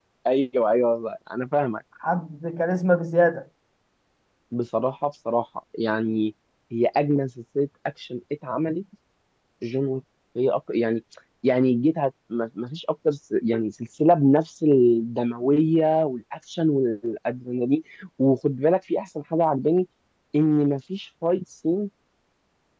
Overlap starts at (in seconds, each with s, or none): none